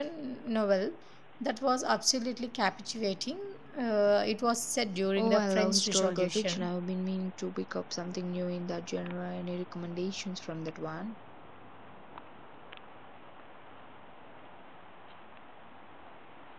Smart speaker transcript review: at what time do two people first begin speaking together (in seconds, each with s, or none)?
5.2 s